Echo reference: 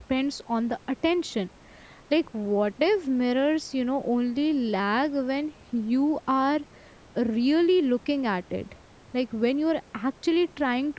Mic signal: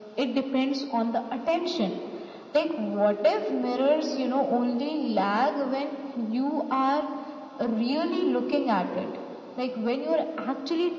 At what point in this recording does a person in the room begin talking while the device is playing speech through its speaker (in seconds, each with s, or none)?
none